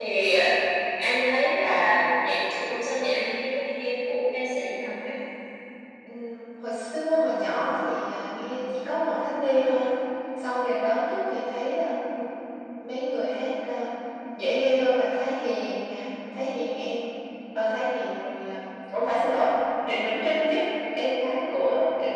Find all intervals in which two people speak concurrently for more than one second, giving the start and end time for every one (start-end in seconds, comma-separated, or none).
none